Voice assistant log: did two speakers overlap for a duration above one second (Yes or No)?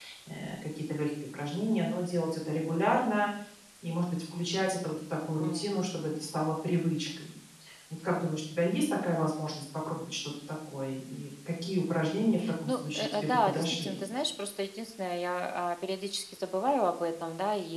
Yes